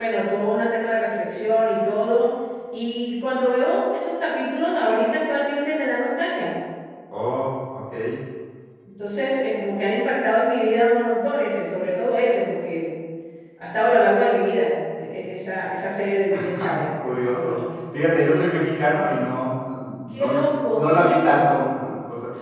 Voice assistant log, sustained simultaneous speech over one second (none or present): present